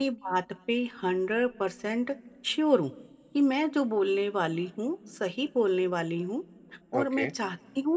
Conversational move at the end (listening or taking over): listening